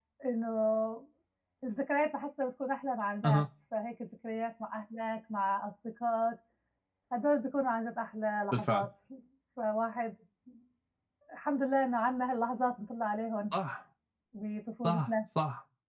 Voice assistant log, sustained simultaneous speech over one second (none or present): none